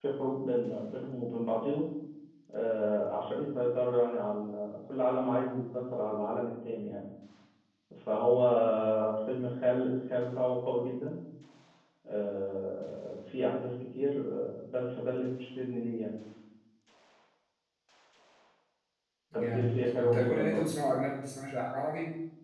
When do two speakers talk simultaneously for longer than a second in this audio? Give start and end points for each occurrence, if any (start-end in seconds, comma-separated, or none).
19.3-20.6